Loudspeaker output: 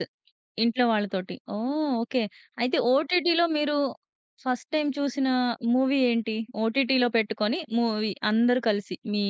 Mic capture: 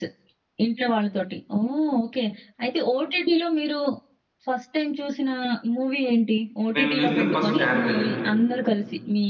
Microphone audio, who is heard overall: both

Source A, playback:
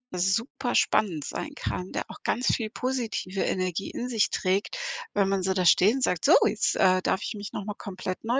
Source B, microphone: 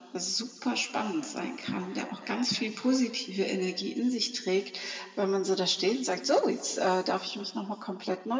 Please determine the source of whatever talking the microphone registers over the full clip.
echo only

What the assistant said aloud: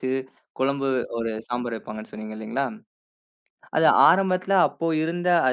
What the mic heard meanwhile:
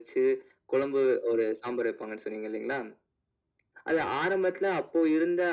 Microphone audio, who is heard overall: echo only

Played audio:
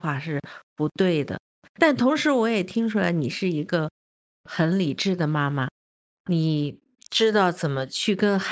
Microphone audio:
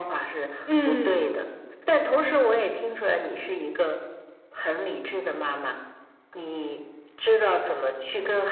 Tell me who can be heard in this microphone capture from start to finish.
both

